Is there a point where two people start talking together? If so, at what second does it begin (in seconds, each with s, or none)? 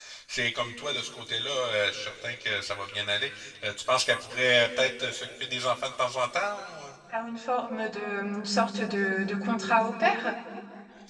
none